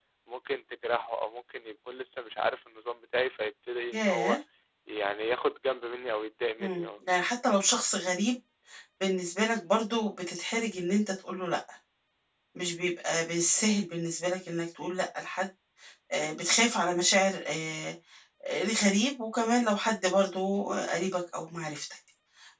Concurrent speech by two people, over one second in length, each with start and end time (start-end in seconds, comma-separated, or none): none